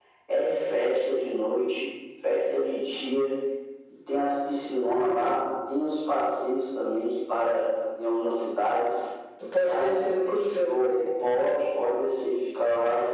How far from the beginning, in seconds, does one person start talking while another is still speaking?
9.6 s

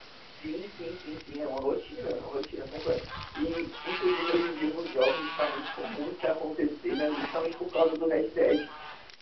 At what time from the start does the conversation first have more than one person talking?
none

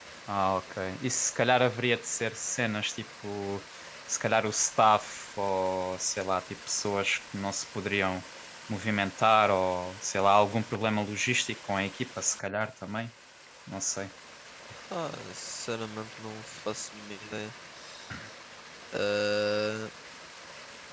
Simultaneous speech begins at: none

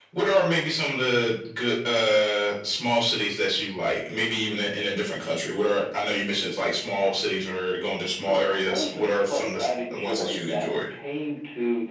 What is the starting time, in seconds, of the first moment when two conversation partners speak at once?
8.2 s

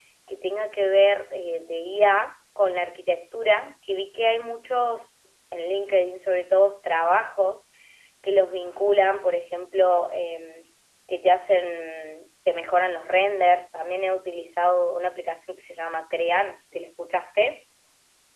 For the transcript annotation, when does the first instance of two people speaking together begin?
none

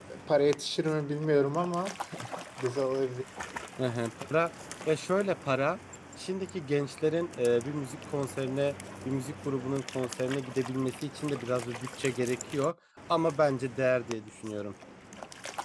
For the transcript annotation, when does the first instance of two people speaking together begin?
none

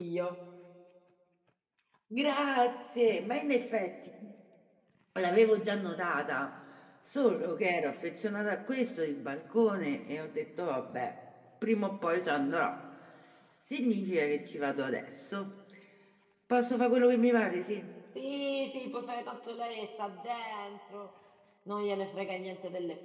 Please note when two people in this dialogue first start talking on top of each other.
none

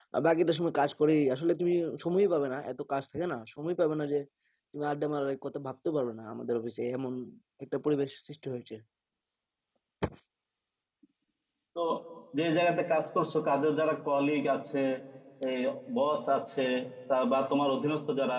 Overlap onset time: none

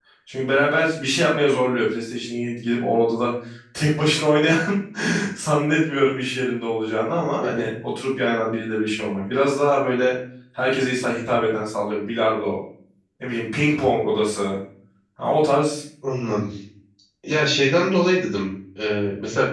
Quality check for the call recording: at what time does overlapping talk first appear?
none

